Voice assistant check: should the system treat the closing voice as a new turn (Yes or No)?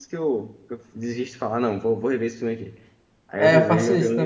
Yes